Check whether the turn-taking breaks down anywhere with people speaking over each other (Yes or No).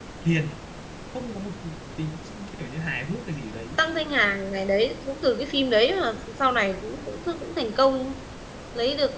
No